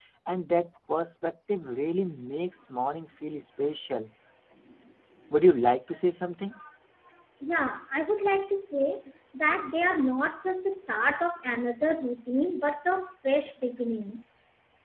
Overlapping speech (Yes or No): No